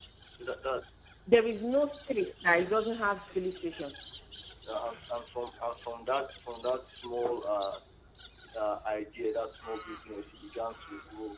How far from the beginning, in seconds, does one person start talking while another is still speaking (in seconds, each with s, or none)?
none